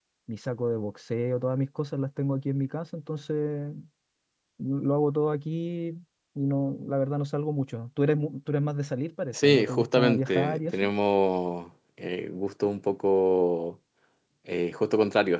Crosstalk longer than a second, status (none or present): present